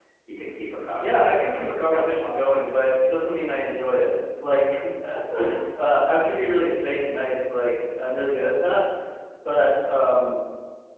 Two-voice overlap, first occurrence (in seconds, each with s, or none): 1.0 s